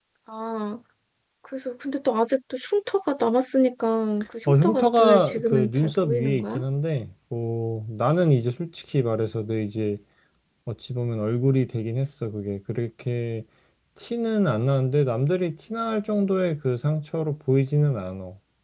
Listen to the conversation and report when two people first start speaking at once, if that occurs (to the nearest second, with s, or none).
4 s